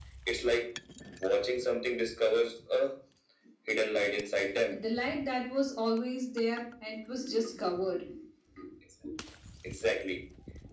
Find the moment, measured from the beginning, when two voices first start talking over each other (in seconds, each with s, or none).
none